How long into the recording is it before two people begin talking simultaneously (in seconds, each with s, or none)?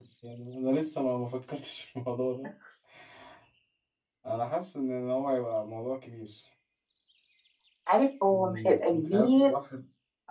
8.3 s